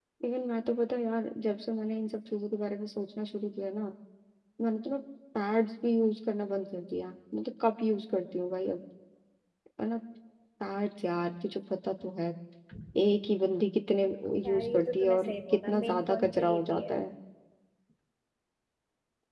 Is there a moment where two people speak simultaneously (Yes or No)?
Yes